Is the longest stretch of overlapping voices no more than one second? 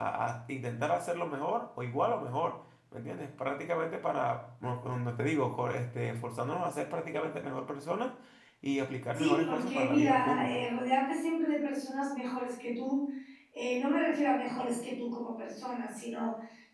No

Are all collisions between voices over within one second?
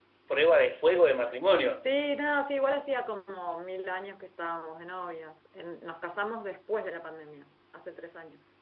Yes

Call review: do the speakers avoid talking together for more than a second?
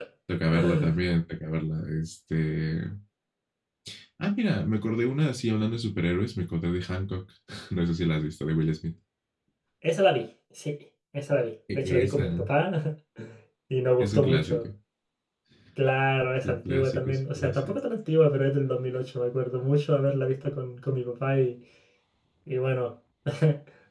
No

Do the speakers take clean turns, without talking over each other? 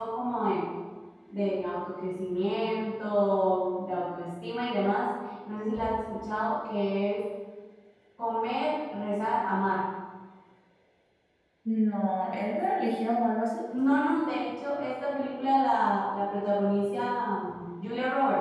Yes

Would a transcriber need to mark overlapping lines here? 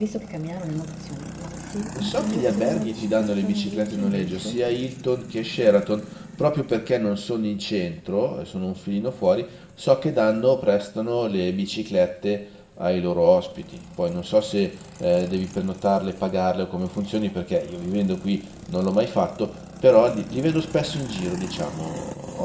Yes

